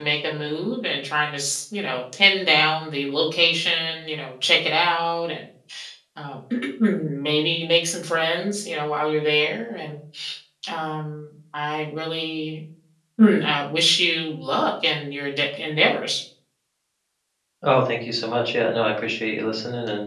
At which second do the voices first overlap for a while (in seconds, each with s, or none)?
none